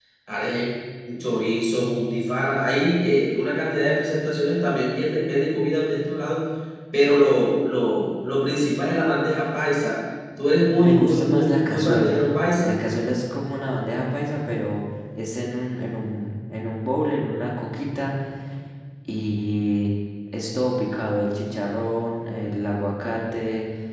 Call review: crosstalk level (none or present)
present